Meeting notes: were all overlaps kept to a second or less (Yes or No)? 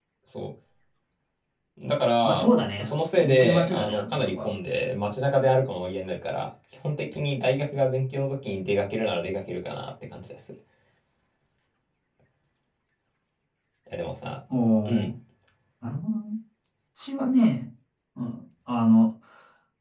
No